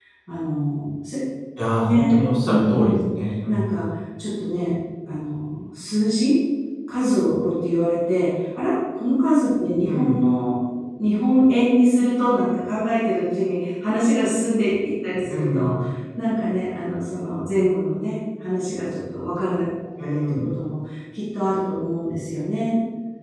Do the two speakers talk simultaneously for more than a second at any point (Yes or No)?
No